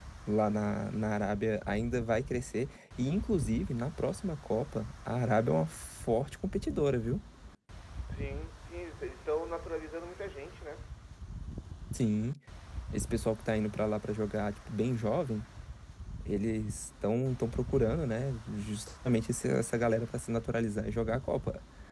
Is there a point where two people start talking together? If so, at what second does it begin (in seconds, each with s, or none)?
none